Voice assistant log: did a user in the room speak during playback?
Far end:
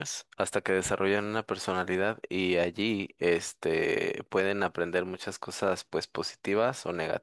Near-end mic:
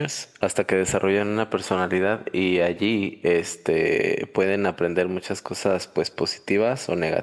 No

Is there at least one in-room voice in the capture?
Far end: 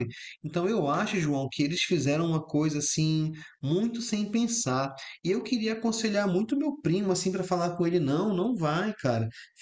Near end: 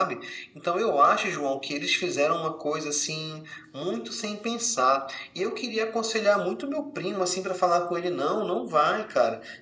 No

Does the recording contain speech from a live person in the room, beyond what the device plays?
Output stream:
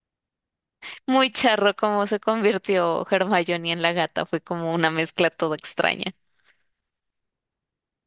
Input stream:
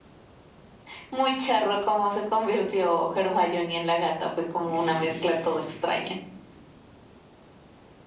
Yes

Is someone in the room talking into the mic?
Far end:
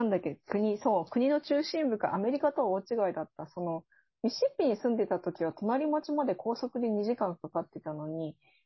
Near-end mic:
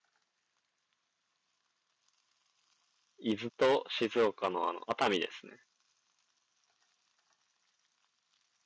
Yes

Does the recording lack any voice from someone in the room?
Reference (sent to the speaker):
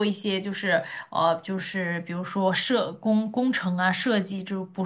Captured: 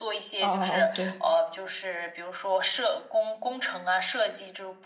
No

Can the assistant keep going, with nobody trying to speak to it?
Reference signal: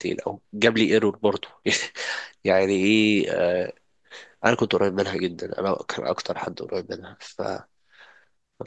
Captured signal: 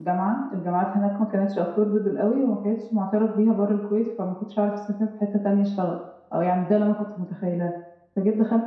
No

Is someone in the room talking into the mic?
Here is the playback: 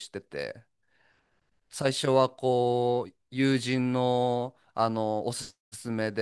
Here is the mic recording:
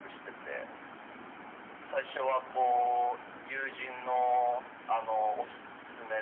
No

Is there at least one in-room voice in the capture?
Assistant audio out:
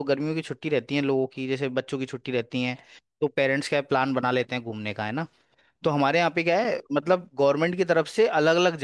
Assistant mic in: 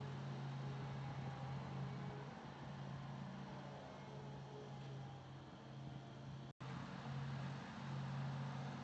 No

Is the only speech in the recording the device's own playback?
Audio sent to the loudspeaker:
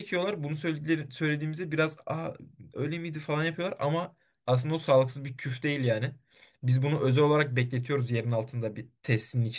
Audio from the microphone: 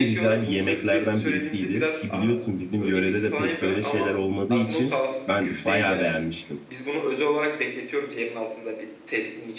No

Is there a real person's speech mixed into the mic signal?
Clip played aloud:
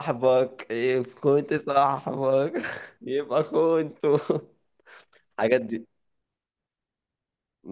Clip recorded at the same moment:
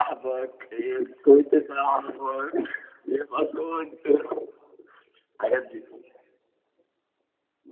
No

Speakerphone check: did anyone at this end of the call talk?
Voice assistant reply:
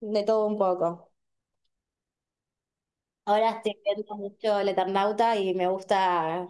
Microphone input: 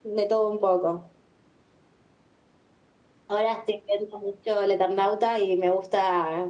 No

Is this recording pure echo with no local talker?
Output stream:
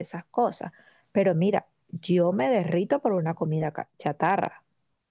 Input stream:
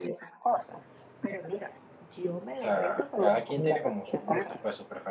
No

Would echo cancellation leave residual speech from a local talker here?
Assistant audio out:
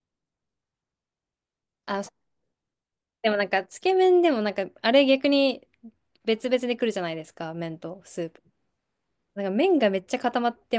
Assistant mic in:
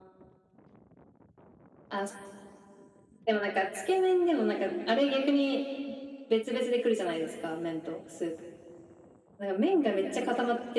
No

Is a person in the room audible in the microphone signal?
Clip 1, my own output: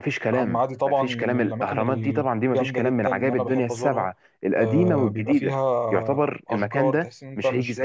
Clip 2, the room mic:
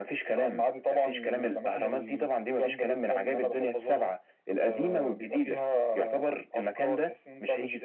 No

